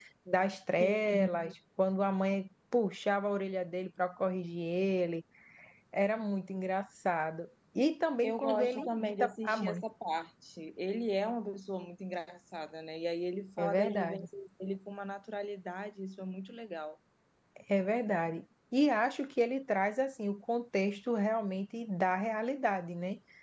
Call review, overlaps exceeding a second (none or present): present